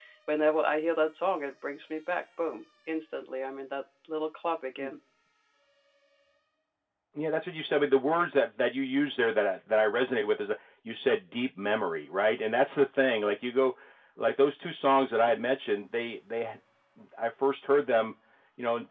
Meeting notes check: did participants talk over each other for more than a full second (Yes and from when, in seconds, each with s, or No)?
No